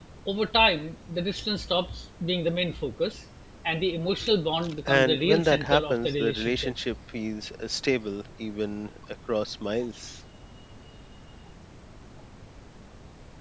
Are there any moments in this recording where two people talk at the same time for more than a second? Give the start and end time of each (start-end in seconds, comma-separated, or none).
4.9-6.7